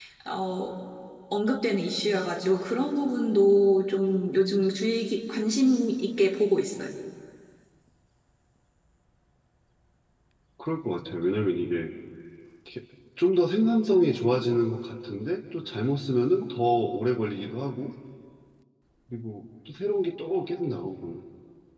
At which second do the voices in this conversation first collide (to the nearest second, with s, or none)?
none